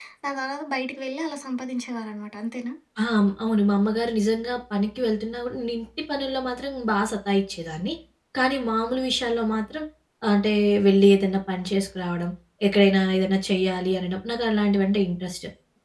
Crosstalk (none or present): none